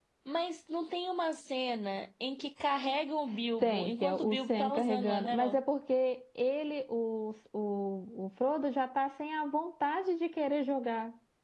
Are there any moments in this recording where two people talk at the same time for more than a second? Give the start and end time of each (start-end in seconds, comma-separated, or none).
3.6-5.6